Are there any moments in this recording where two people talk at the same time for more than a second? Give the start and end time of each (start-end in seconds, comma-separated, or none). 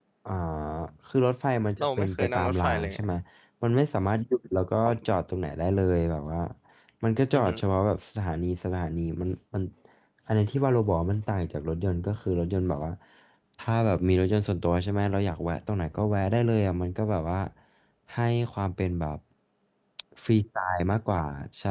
1.8-3.0